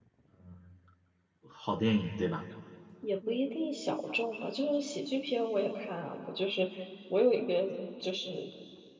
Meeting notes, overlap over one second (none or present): none